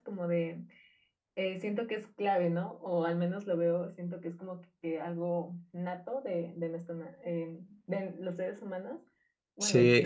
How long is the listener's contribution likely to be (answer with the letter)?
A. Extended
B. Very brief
A